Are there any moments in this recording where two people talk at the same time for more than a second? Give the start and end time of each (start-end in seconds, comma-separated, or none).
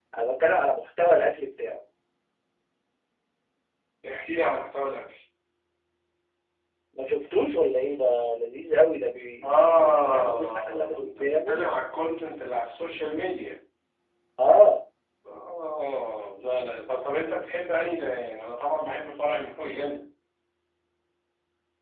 9.4-11.6